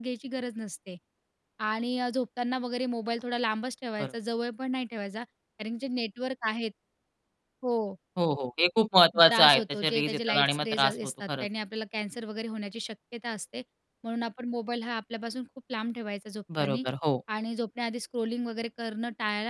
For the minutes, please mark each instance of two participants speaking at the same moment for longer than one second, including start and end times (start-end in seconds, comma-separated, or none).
9.3-11.5